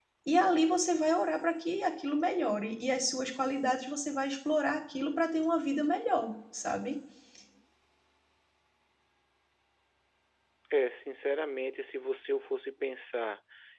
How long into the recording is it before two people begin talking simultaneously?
none

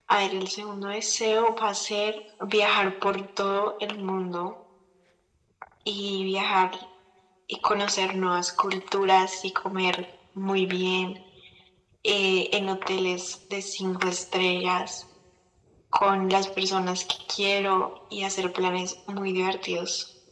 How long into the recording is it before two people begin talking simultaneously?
none

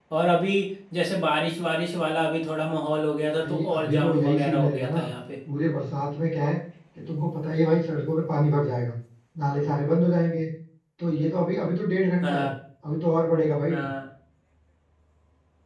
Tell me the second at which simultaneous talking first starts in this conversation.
3.4 s

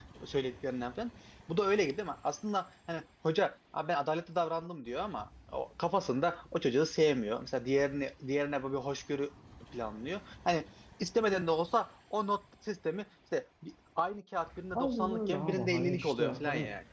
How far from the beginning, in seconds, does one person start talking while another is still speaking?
14.8 s

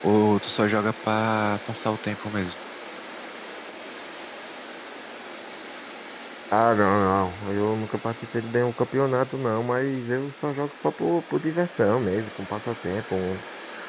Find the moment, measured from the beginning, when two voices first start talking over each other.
none

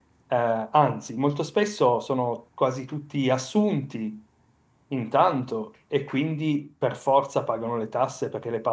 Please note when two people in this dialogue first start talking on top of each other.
none

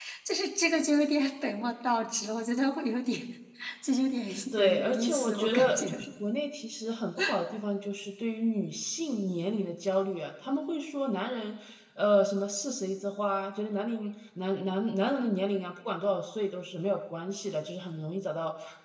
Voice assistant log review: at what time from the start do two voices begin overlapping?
4.5 s

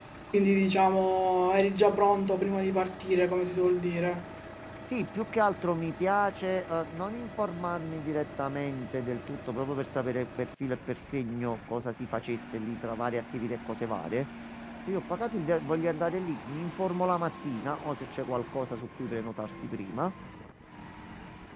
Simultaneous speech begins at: none

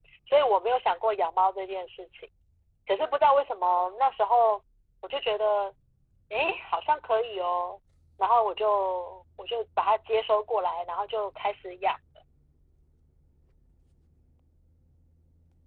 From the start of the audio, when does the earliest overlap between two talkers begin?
none

